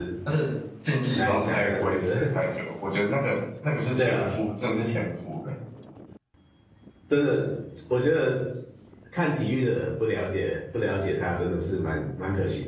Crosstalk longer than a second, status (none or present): present